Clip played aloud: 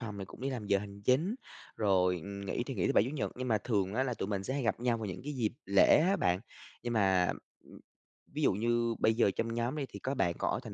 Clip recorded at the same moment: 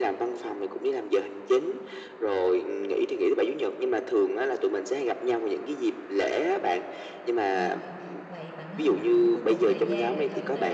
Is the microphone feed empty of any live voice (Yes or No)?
No